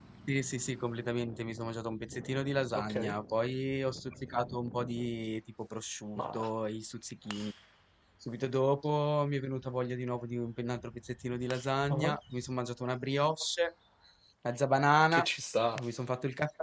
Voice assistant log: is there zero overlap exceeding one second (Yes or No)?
Yes